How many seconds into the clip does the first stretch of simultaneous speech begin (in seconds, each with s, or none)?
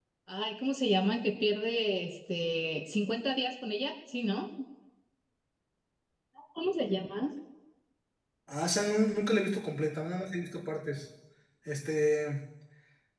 none